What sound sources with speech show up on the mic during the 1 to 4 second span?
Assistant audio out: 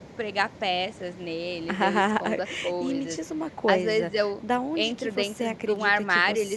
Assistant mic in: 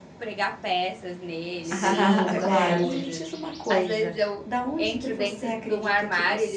both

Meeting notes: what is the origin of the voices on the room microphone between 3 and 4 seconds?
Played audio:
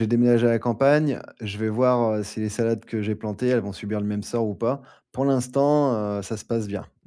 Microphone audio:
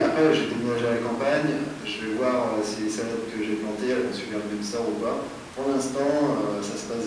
echo only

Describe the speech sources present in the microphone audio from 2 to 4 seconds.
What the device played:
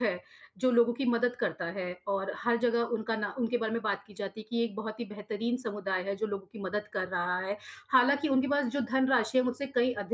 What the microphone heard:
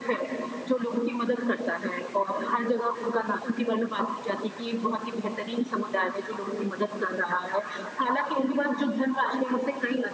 echo only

